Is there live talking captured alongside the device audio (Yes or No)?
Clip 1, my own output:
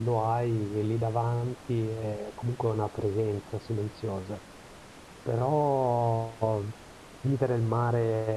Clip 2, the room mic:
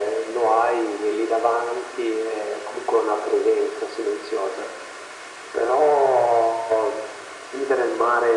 No